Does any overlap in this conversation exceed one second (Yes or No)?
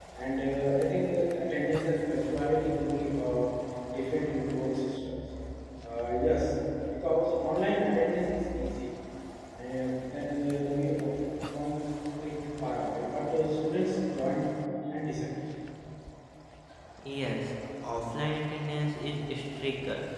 No